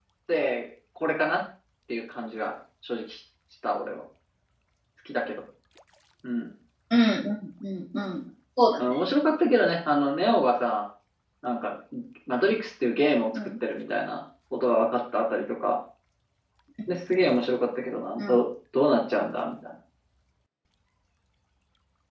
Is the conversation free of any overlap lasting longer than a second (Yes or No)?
Yes